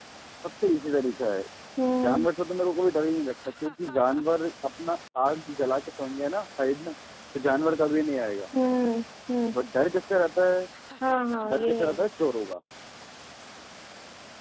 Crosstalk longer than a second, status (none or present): none